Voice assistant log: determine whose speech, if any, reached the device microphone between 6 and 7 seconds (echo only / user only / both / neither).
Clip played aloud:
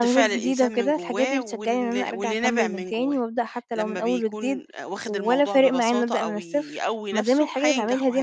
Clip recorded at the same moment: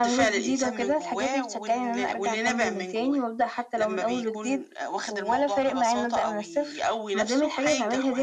echo only